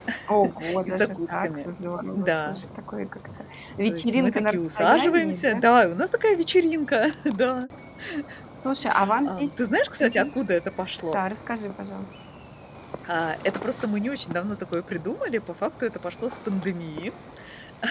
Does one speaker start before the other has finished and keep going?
Yes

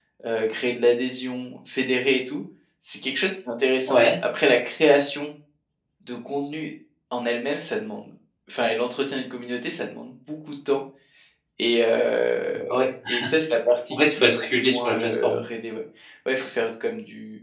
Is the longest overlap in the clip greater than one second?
Yes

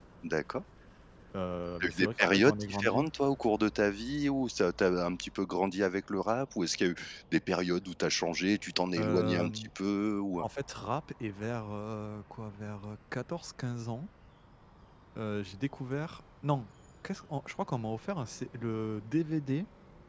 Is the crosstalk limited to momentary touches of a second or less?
No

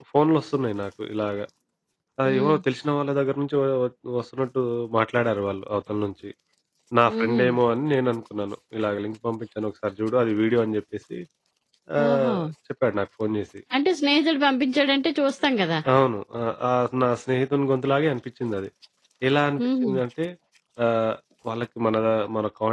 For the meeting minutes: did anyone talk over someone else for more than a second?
No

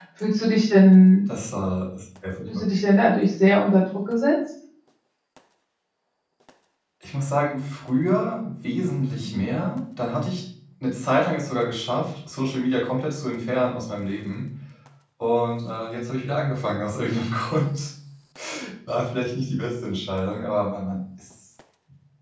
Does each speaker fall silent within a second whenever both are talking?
Yes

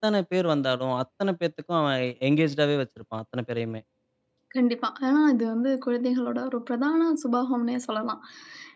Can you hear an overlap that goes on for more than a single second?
No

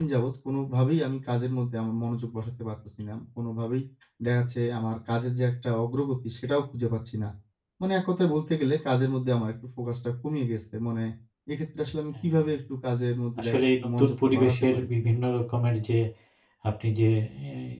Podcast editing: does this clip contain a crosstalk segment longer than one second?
Yes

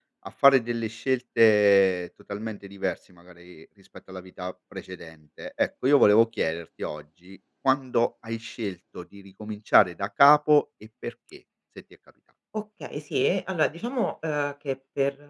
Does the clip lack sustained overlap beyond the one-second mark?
Yes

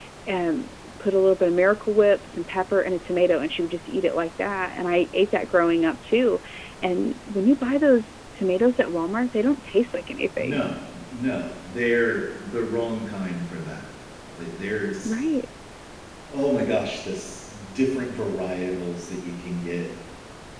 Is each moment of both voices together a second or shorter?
Yes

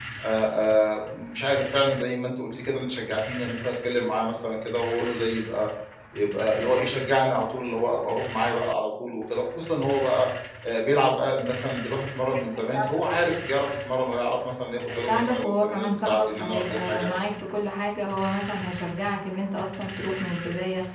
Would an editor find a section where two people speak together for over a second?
Yes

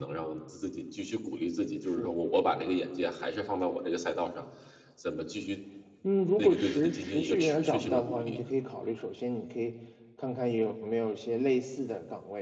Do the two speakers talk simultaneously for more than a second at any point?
Yes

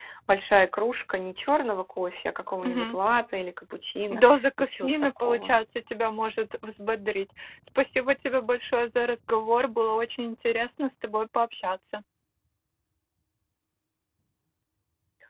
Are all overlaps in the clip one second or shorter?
No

